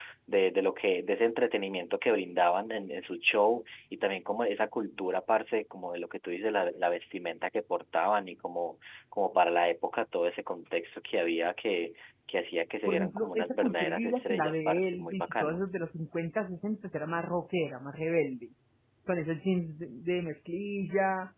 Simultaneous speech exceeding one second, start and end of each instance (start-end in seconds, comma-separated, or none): 12.9-15.6